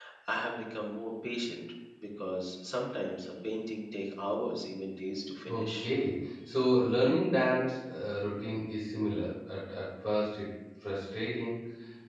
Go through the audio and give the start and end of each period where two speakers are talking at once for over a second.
none

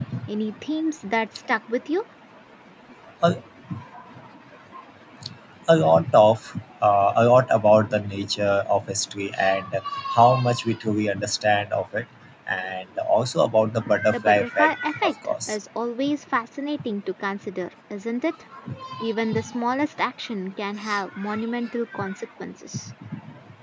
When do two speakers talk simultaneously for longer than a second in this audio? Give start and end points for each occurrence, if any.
14.1-15.6

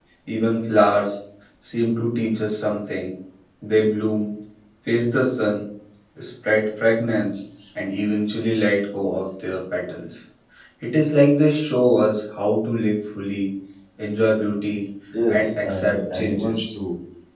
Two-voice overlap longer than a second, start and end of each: 15.3-16.6

